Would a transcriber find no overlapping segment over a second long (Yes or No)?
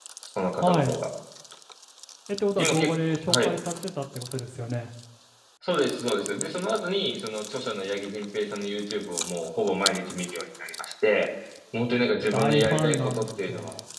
No